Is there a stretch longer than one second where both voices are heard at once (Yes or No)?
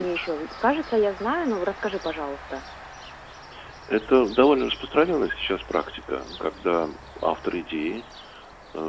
No